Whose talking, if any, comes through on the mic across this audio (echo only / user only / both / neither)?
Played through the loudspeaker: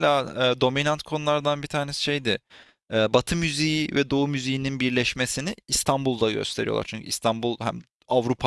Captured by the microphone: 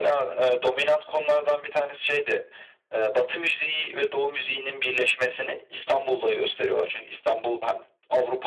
echo only